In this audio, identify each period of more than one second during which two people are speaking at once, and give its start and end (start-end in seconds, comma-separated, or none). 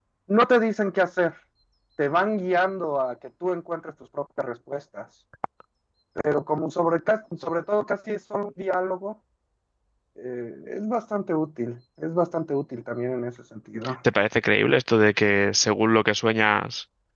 none